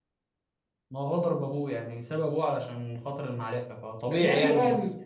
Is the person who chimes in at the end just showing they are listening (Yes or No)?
No